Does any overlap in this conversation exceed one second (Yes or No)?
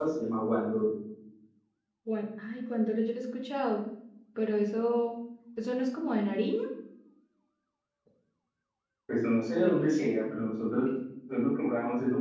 No